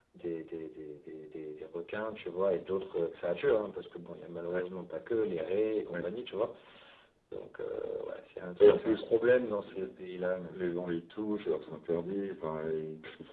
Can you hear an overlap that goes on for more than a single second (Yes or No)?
No